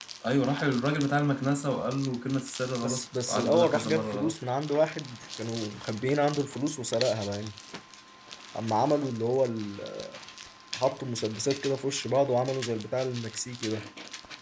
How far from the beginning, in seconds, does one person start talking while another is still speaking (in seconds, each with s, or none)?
2.8 s